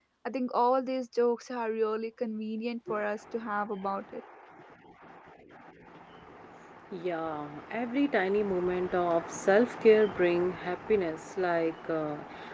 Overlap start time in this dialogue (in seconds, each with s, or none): none